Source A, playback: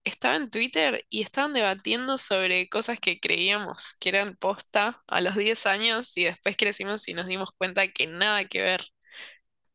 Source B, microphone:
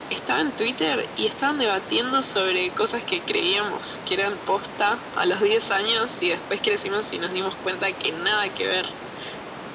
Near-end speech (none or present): none